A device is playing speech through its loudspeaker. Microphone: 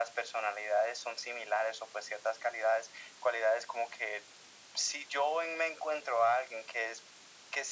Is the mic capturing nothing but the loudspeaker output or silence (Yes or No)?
Yes